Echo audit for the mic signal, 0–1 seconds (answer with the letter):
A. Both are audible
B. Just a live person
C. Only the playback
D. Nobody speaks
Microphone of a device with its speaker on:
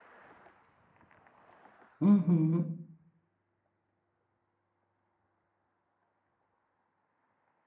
D